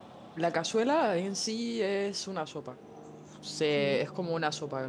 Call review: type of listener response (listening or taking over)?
listening